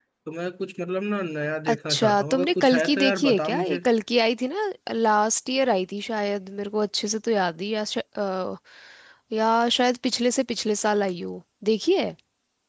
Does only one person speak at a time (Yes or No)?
No